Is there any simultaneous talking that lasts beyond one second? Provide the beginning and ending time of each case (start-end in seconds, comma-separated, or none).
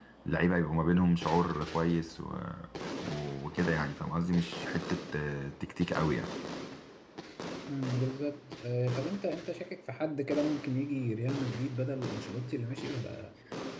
none